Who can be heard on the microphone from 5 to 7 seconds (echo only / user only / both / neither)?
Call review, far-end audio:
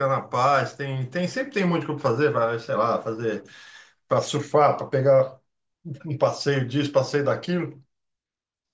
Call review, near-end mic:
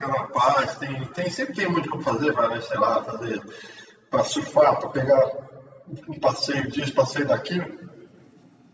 echo only